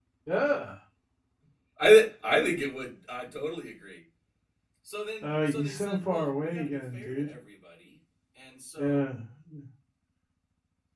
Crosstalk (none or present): present